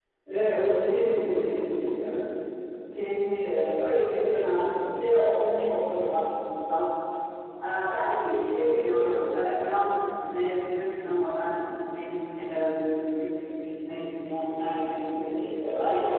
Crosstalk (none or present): none